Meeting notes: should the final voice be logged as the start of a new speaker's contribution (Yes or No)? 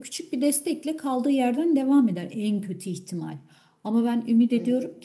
No